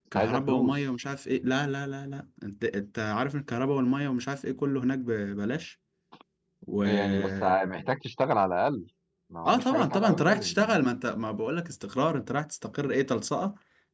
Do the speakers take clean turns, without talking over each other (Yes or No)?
No